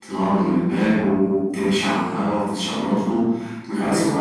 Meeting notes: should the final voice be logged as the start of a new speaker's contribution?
Yes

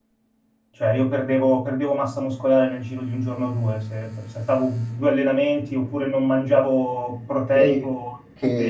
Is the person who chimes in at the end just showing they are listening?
No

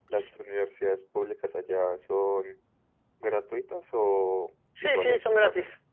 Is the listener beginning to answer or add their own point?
Yes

